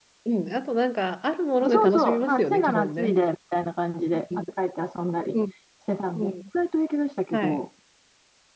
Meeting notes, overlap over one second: present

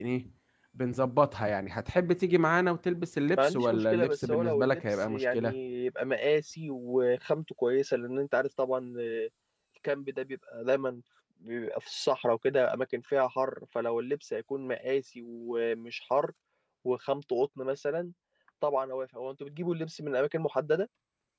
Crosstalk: present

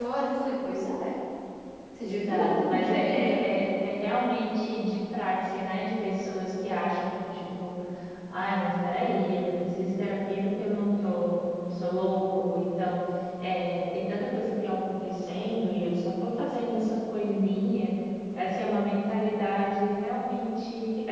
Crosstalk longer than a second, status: present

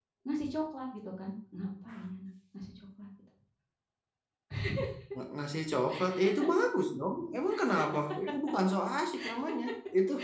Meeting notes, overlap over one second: none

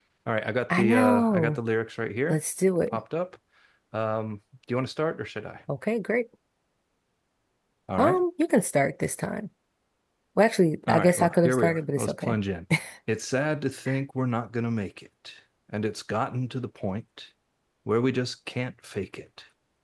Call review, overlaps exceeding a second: present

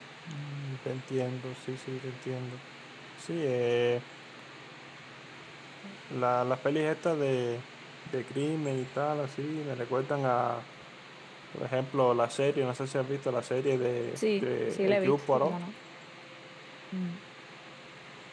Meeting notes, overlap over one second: present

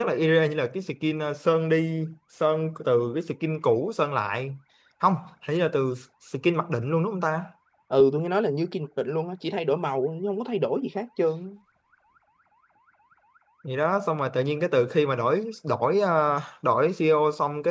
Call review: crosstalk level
none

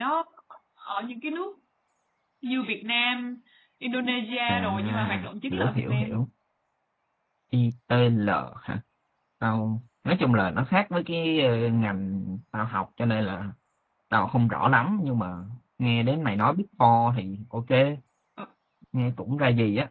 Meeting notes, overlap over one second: present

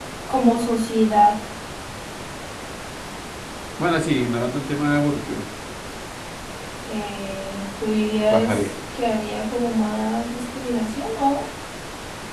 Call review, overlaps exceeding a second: none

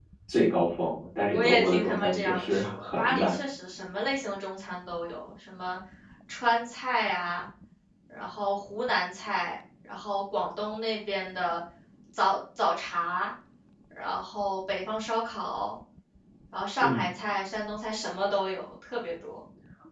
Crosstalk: present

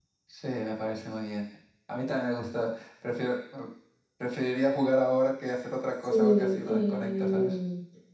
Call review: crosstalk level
present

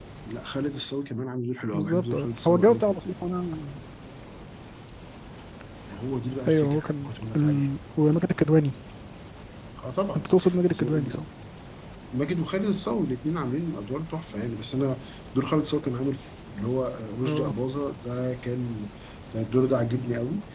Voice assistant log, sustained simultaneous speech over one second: present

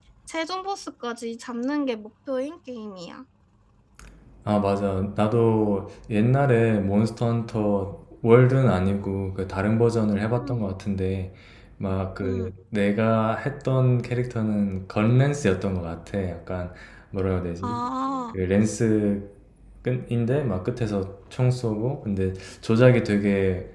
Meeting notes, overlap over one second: none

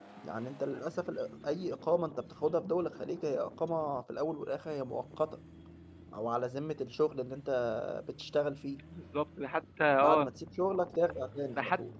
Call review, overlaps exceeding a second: none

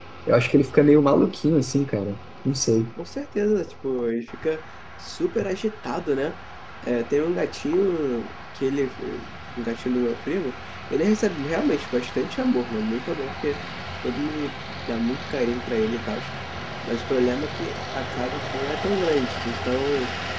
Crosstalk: none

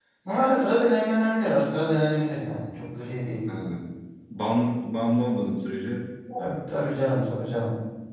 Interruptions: none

